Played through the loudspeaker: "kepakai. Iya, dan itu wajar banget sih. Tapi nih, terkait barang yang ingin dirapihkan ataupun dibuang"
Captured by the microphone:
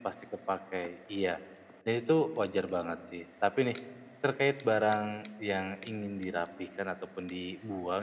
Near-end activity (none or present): none